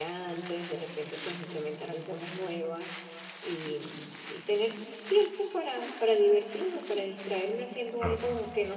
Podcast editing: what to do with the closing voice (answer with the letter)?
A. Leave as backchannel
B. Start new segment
A